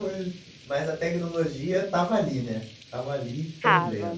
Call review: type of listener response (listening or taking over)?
taking over